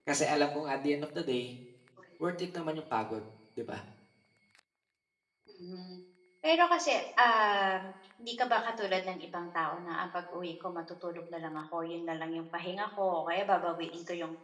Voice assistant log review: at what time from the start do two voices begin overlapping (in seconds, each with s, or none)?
none